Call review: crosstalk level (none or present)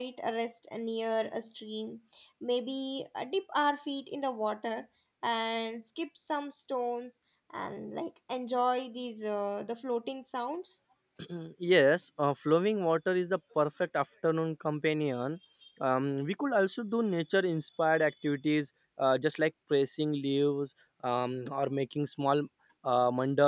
none